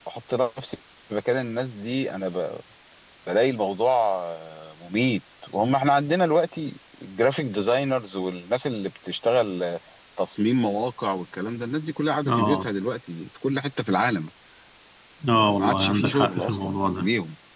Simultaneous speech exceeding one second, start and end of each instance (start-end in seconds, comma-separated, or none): 15.6-17.1